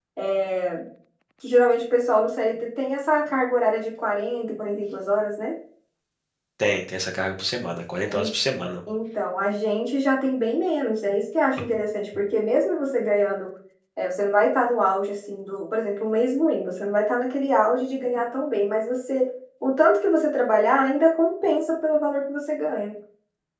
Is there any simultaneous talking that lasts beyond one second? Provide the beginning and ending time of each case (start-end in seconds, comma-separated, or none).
none